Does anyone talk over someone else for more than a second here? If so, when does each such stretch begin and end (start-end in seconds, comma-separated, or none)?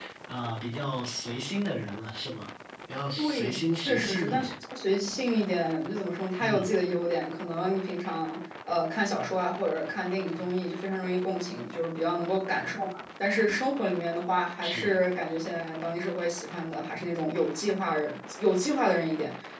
3.2-4.5